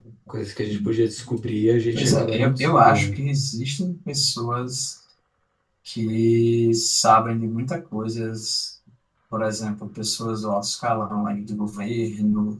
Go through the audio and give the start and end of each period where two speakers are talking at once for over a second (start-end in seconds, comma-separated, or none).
2.0-3.2